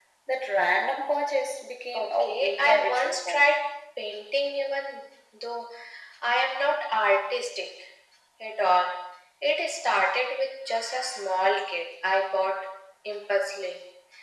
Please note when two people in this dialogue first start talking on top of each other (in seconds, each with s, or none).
1.9 s